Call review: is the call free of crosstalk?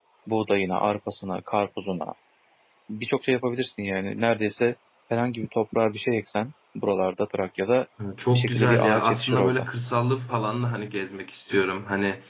No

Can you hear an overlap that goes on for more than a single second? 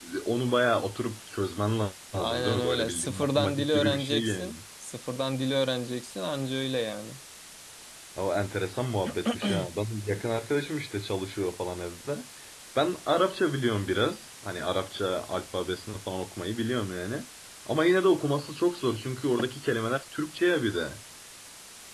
Yes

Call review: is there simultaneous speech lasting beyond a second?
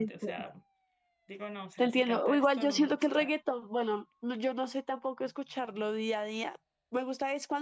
Yes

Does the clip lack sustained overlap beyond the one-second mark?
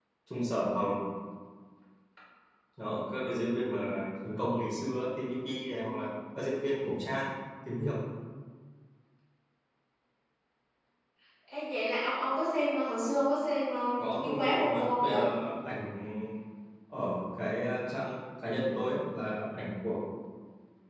No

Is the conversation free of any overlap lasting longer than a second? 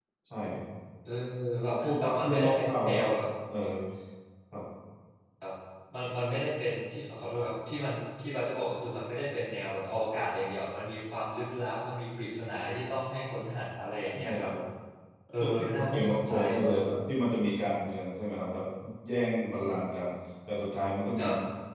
No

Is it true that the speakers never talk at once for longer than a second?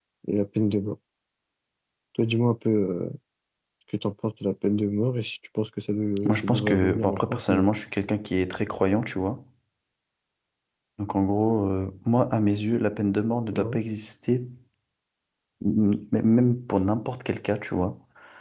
No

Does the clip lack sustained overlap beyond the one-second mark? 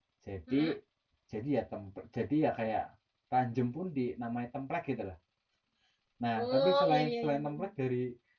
No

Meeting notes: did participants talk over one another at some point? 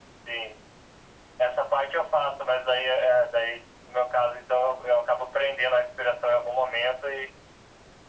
No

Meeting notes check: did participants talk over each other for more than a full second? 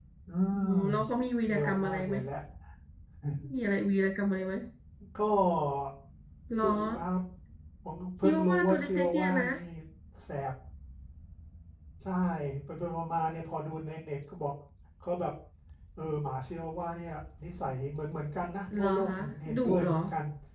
Yes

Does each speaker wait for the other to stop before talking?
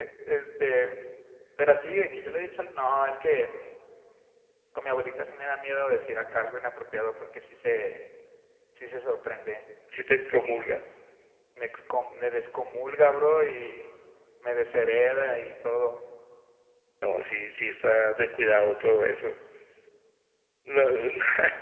Yes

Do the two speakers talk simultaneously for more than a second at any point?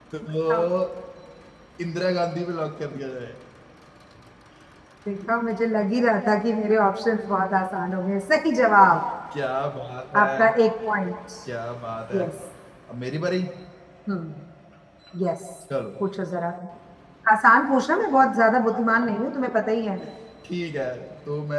No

